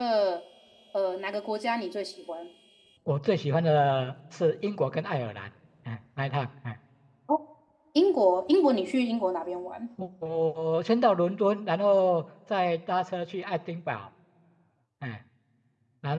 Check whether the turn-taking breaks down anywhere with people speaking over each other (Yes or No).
No